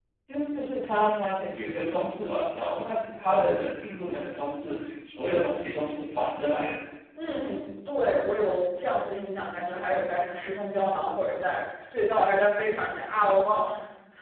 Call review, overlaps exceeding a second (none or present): none